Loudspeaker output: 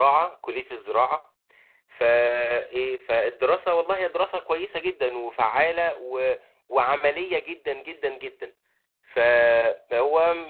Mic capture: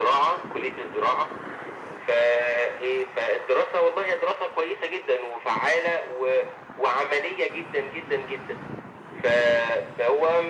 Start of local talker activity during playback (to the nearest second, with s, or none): none